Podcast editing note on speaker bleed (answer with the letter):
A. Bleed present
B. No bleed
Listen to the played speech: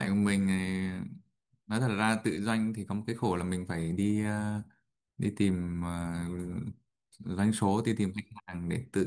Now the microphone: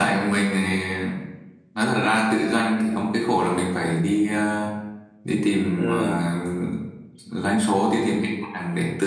A